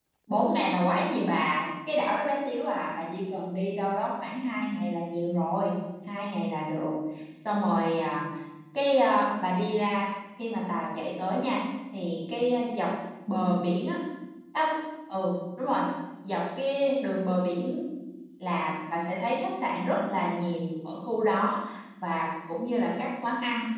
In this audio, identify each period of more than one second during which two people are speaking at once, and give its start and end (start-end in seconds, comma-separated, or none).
none